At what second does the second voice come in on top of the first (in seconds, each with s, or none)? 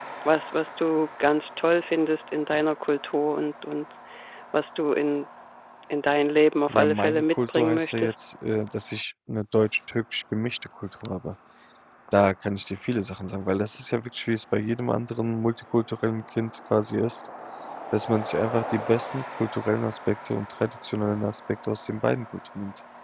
6.7 s